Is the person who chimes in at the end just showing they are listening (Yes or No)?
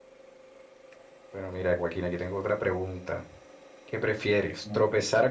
Yes